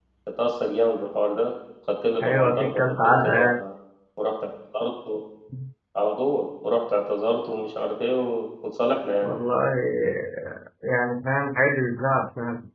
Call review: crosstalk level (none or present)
present